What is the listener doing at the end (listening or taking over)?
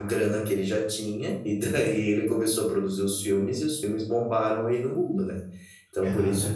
listening